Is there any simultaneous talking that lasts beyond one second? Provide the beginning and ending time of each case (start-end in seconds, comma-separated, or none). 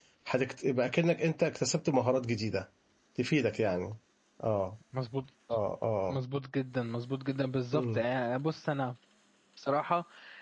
none